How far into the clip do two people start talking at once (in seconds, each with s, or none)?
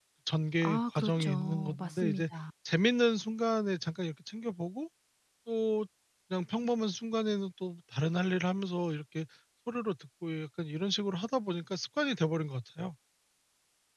0.6 s